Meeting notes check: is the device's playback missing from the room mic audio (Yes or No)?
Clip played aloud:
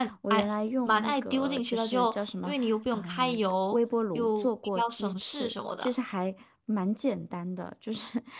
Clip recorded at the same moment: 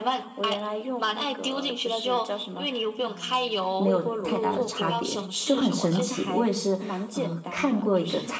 No